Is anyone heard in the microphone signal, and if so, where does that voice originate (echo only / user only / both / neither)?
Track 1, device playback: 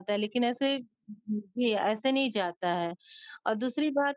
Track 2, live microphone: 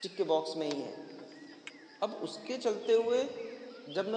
user only